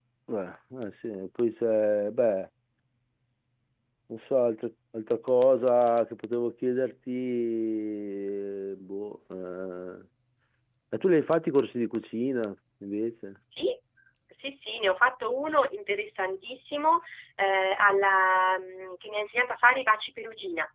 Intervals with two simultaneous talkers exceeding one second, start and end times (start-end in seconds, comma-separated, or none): none